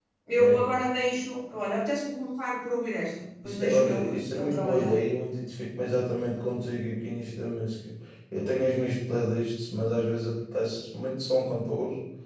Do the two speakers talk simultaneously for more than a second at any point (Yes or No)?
Yes